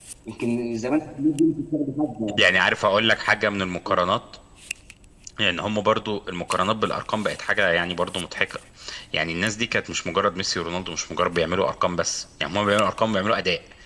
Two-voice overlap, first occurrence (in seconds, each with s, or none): none